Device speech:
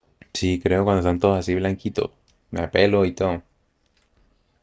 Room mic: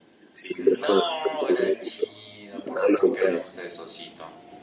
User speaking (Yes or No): Yes